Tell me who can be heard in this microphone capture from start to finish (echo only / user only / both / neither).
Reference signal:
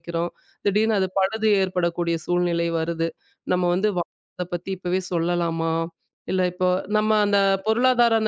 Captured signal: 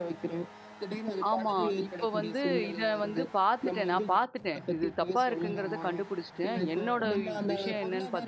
both